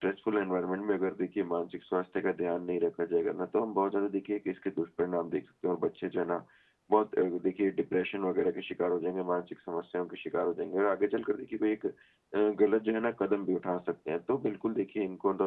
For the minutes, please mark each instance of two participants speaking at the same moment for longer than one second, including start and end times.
none

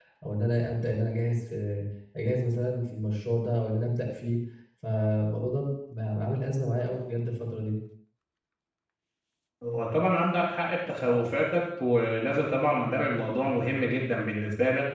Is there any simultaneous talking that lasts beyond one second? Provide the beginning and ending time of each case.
none

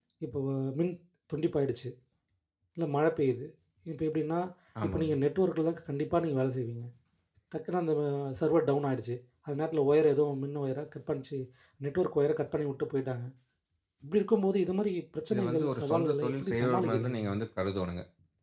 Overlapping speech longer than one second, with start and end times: 15.3-17.4

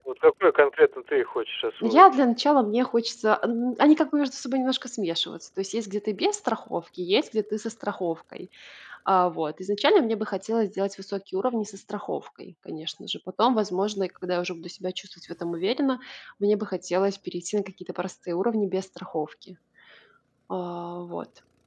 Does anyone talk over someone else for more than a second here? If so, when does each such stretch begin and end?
none

